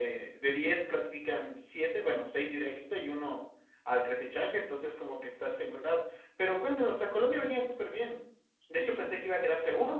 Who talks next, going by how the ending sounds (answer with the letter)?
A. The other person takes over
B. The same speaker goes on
B